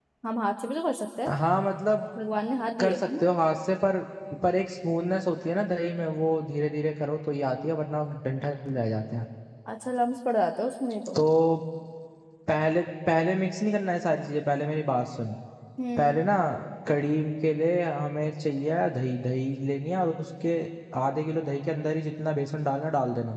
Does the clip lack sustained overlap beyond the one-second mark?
Yes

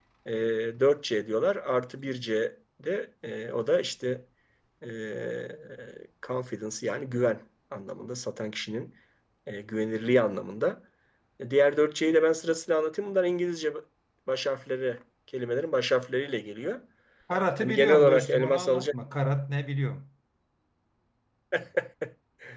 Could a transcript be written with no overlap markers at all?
No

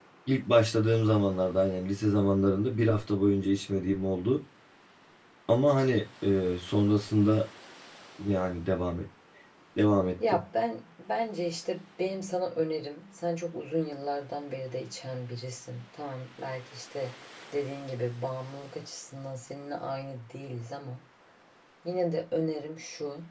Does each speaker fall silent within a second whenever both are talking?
Yes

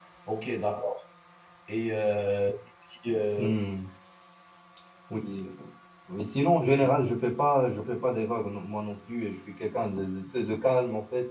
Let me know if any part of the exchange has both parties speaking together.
No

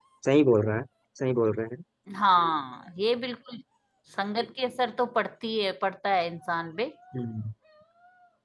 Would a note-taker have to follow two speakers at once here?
No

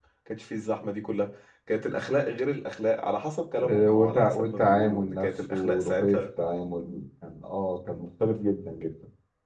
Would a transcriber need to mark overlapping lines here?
Yes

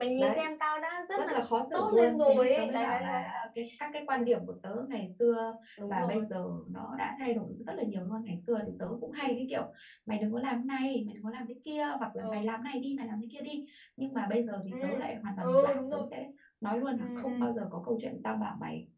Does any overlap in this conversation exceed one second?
Yes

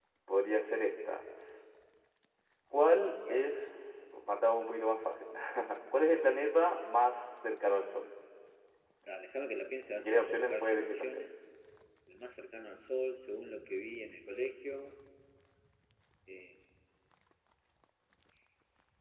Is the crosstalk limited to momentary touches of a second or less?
No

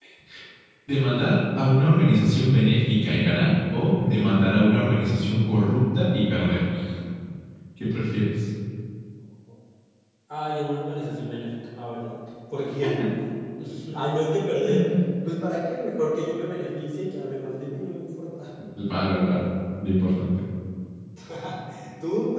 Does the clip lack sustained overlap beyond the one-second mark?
Yes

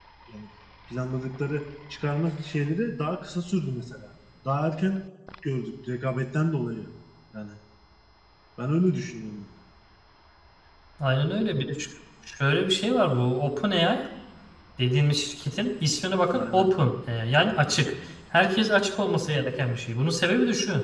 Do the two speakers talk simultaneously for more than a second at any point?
No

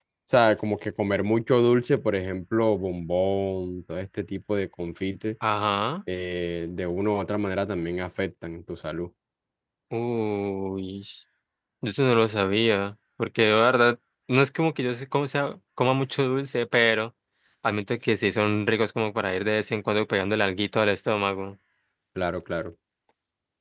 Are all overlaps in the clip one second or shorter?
Yes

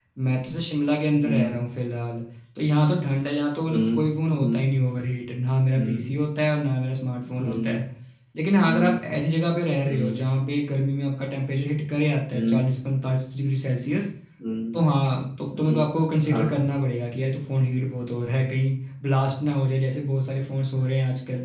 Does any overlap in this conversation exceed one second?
No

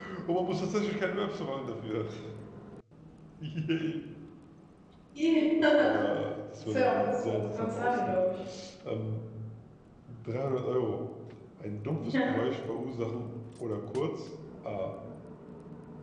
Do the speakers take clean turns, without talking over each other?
No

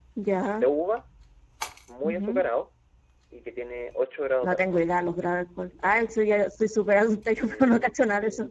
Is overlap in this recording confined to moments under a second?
Yes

